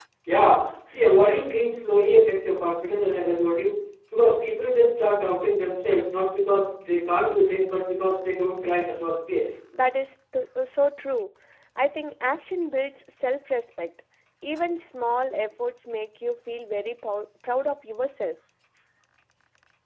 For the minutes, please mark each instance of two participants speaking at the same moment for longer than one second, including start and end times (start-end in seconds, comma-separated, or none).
none